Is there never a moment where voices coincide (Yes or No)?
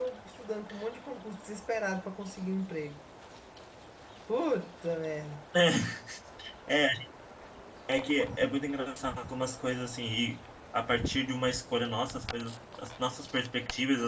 Yes